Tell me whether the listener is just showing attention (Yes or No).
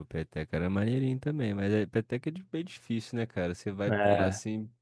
Yes